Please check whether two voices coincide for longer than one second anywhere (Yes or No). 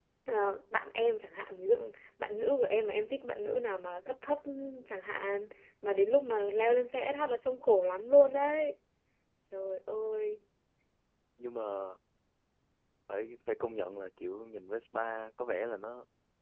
No